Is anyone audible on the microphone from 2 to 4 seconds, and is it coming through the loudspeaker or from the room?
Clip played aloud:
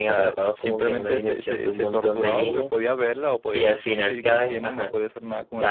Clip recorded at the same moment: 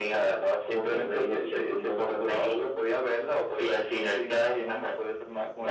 echo only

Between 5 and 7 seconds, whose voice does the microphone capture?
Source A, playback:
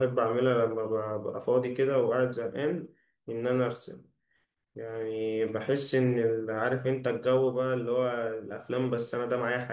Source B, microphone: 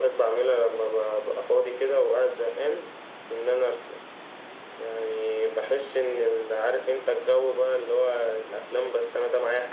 echo only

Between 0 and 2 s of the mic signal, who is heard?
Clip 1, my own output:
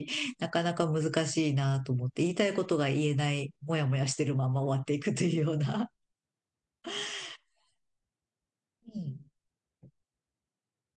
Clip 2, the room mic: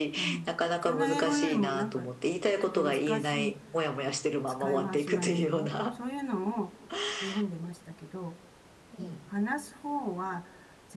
both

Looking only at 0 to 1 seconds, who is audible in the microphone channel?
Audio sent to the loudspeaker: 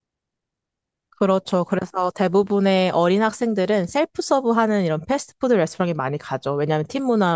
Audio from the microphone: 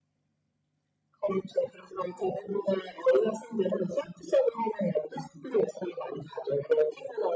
neither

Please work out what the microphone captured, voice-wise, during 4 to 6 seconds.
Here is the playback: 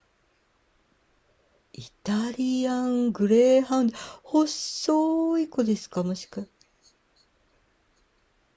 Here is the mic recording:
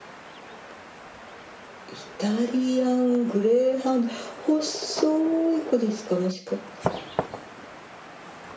echo only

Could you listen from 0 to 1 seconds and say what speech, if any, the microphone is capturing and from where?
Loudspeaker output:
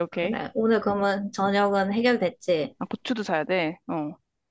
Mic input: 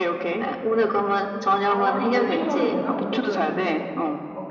echo only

